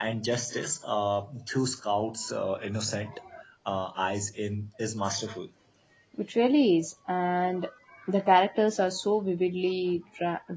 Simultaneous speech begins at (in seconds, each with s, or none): none